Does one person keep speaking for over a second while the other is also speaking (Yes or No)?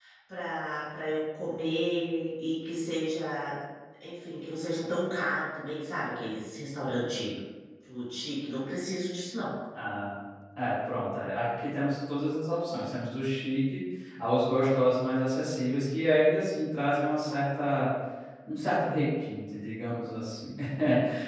No